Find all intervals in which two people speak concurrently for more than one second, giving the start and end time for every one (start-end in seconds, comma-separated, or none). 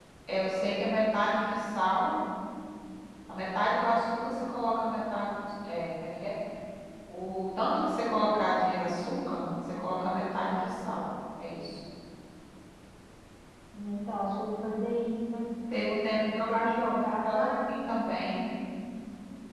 16.4-17.7